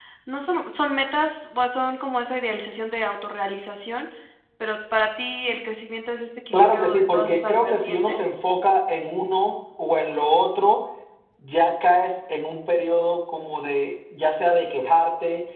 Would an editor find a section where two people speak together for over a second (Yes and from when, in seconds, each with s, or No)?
Yes, from 6.5 s